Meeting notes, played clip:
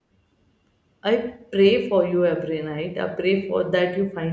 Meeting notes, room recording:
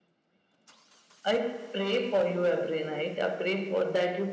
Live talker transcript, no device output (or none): none